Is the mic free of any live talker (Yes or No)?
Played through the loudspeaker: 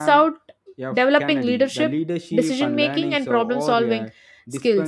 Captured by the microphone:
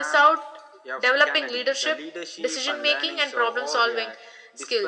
Yes